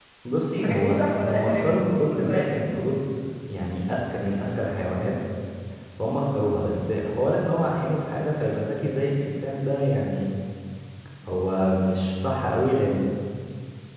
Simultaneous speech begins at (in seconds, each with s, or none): 0.5 s